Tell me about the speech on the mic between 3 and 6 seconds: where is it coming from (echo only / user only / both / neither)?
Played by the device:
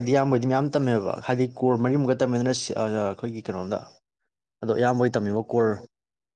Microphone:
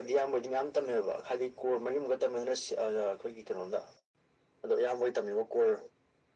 echo only